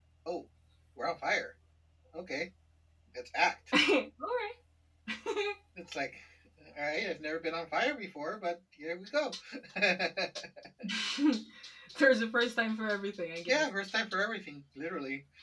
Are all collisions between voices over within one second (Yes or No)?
Yes